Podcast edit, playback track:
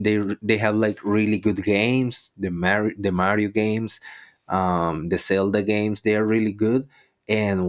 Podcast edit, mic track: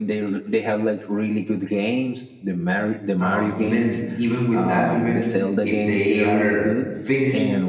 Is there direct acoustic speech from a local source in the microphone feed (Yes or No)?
Yes